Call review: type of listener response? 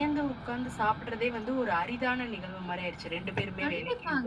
taking over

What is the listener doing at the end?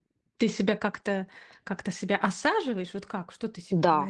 taking over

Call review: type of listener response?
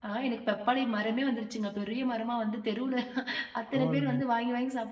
listening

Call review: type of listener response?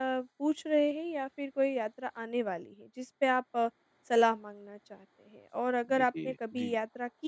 listening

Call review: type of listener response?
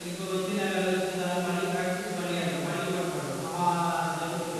taking over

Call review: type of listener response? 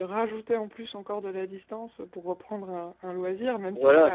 taking over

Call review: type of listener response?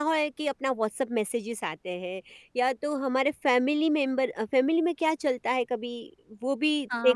taking over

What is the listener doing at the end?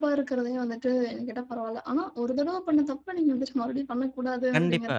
taking over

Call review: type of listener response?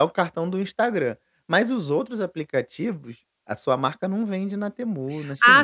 taking over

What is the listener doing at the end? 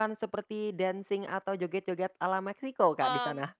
taking over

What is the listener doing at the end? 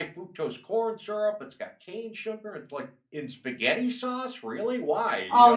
taking over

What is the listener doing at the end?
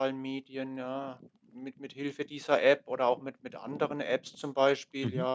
listening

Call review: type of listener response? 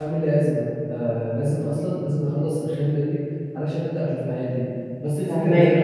taking over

